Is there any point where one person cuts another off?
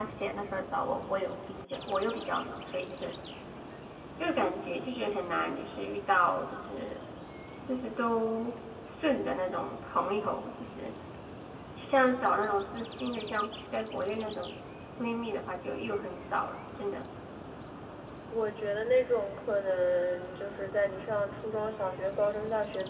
No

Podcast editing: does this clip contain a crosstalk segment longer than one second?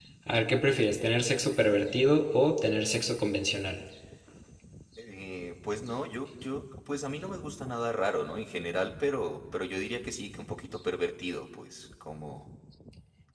No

